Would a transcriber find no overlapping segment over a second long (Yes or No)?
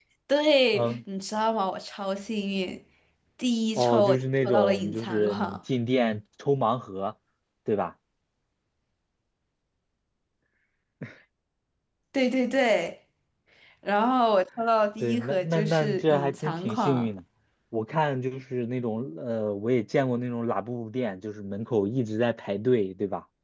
No